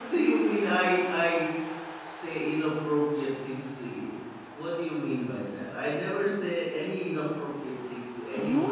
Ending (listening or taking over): taking over